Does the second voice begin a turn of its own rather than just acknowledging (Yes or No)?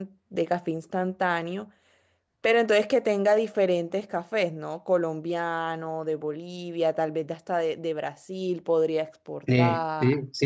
Yes